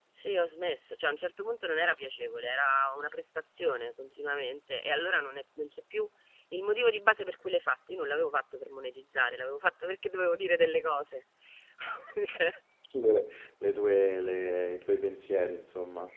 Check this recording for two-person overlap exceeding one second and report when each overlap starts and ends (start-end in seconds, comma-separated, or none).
none